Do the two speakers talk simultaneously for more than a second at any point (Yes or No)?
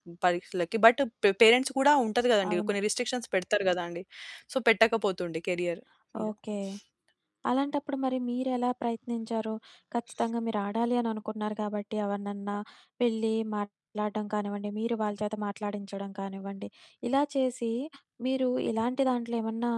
No